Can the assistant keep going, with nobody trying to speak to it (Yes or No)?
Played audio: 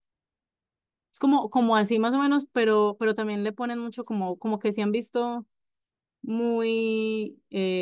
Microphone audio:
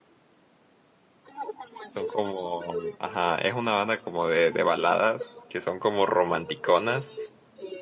No